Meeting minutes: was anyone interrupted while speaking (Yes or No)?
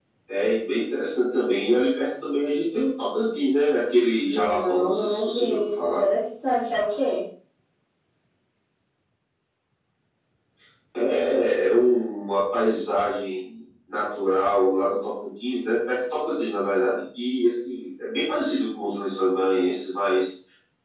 Yes